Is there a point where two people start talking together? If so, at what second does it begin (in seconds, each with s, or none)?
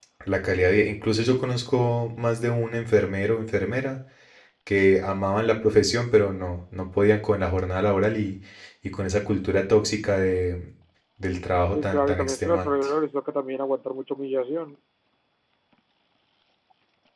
11.6 s